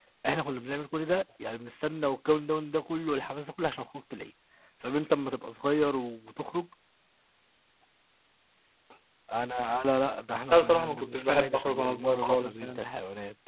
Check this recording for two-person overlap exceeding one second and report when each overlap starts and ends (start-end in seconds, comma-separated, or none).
10.5-12.8